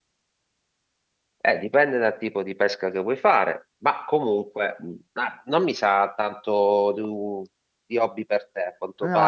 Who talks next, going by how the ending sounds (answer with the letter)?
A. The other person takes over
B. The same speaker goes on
B